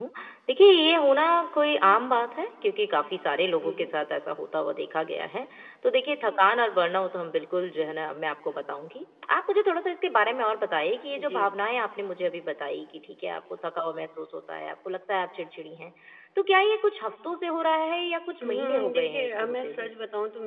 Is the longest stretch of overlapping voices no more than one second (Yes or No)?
No